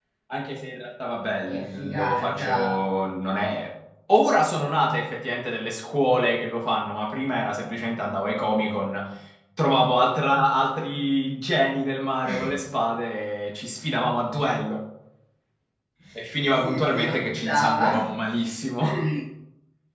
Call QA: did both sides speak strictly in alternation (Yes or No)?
No